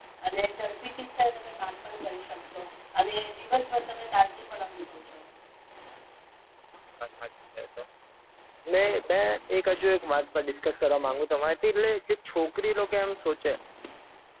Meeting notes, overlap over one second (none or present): none